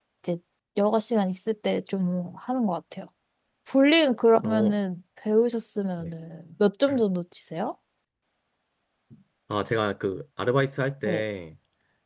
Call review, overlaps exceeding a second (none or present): none